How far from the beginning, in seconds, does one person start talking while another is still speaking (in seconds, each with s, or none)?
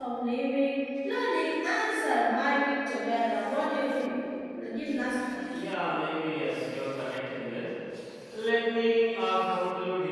none